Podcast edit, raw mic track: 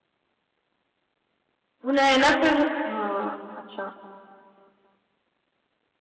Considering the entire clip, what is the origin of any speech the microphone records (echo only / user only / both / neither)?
user only